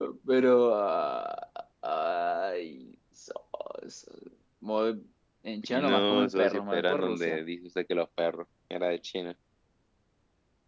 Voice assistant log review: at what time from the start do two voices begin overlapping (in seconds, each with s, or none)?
5.6 s